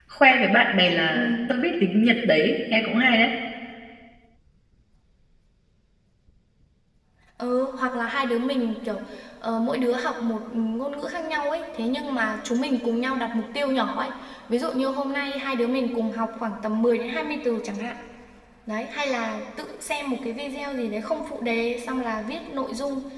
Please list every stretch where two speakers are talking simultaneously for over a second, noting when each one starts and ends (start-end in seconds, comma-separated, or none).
none